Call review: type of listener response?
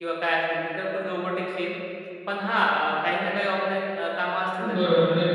taking over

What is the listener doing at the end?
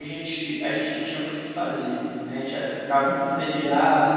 listening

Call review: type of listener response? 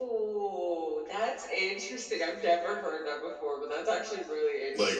taking over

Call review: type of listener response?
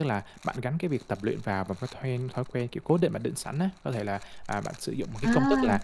listening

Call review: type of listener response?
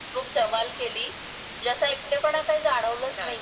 listening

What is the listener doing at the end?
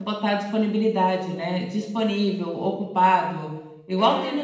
listening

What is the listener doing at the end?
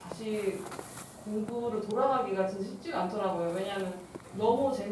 listening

